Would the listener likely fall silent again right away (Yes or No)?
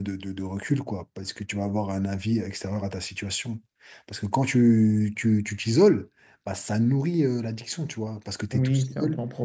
No